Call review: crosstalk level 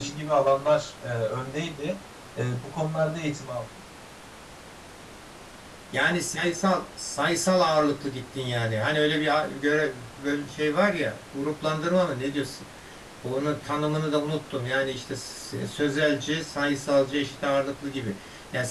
none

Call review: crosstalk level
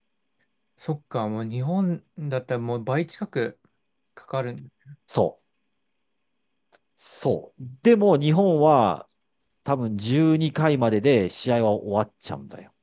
none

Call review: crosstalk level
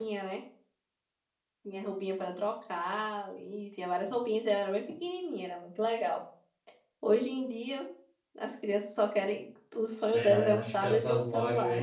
present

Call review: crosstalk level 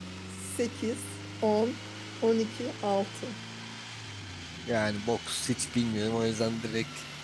none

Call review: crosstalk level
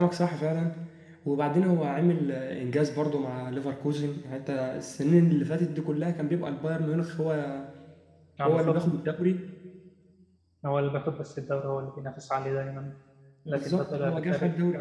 present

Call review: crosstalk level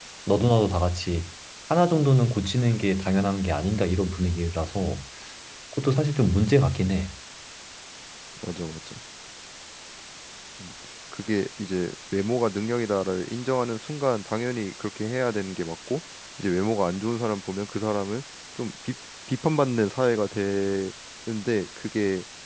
none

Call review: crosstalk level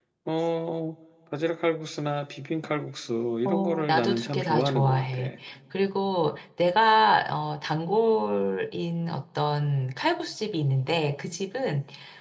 present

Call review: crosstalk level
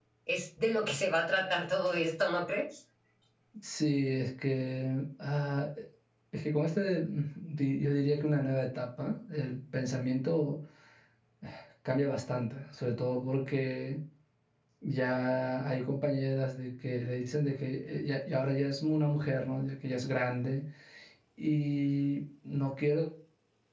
none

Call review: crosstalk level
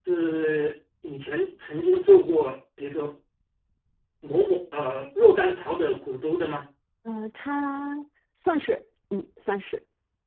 none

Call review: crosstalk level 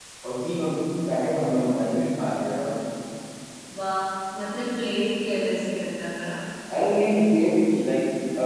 none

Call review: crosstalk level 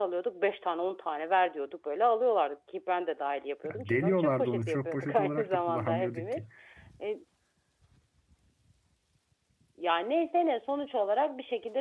present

